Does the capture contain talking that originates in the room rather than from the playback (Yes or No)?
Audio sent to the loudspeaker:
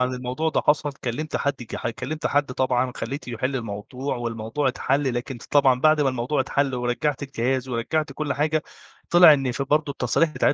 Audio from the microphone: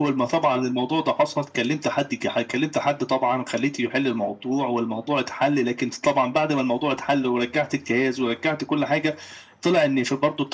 No